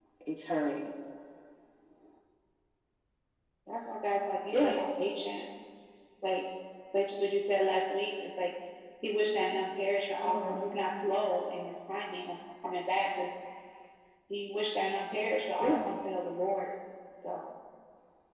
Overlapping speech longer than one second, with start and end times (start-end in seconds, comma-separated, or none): none